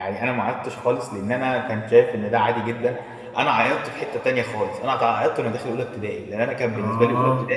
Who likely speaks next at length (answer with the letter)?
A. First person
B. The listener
A